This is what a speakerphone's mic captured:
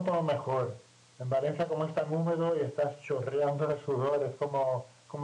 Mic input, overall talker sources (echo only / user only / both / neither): echo only